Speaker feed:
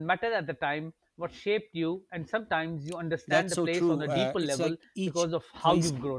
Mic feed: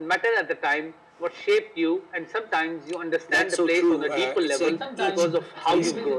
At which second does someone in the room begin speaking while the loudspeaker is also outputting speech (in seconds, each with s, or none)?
4.6 s